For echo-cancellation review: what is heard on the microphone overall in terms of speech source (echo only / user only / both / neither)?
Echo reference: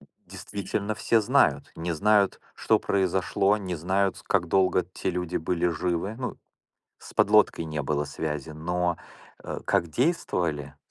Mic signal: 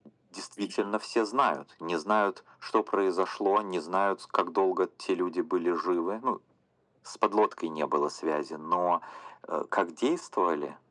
echo only